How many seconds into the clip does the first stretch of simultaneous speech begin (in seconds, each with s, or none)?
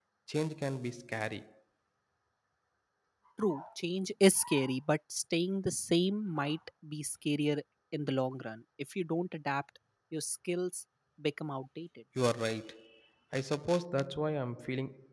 none